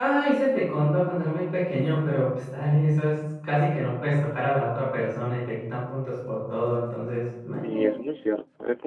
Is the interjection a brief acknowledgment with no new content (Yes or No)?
No